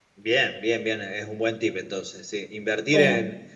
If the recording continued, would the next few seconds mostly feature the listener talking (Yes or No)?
No